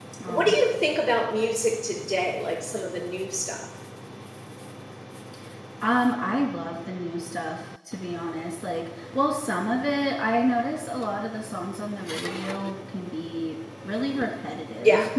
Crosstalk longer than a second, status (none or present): none